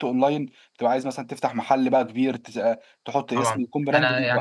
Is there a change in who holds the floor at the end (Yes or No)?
Yes